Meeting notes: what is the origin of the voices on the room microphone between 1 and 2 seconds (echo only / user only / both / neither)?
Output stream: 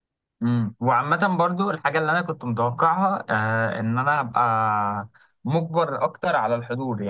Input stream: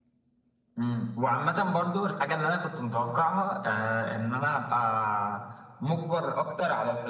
echo only